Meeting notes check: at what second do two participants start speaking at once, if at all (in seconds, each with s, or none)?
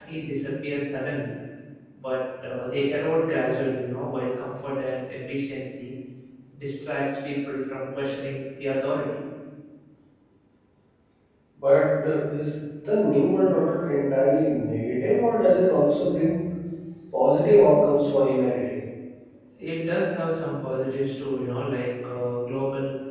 none